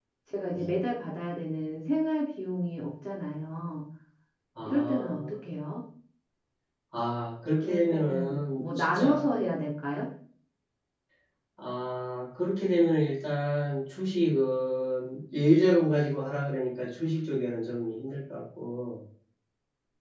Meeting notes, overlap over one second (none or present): present